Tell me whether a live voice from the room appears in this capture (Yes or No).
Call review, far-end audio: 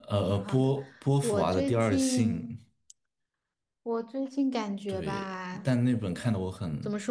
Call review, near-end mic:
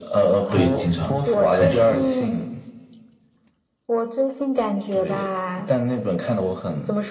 Yes